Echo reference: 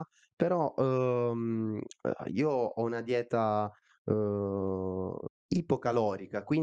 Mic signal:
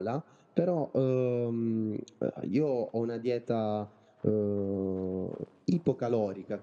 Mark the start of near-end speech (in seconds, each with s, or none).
none